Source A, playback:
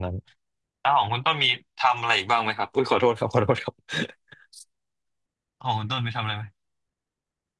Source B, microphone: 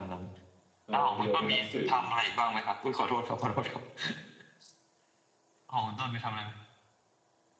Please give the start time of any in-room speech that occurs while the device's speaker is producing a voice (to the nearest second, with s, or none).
1 s